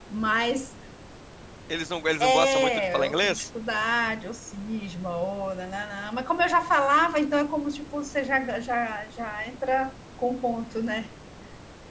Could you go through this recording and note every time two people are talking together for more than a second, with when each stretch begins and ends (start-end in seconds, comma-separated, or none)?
2.2-3.4